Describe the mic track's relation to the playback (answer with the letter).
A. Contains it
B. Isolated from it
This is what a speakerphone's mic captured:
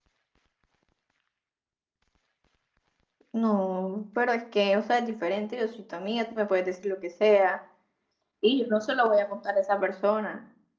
B